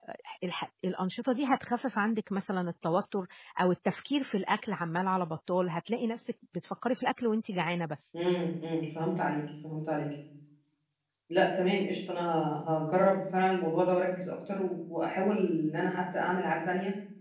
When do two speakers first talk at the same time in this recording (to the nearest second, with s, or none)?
none